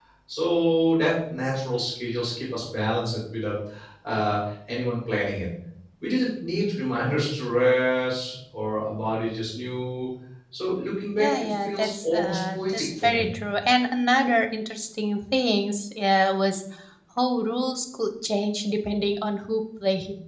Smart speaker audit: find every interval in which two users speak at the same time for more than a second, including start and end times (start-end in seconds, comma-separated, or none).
11.2-13.3